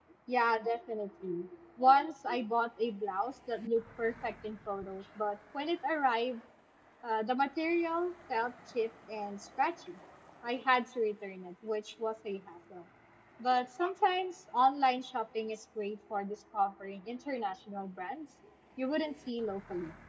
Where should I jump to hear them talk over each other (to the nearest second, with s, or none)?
none